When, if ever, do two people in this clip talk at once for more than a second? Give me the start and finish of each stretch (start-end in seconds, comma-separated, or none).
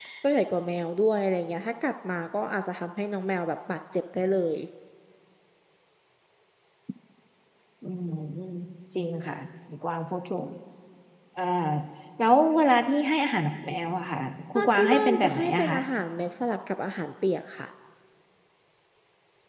14.6-15.8